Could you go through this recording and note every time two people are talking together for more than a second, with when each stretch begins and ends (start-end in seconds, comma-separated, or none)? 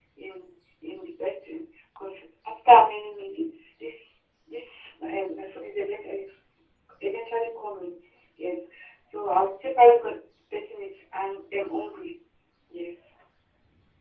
none